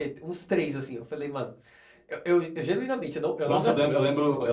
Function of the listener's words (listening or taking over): taking over